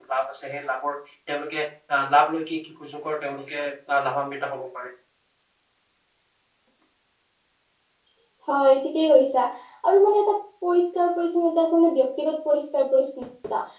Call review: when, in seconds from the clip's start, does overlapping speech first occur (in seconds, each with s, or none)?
none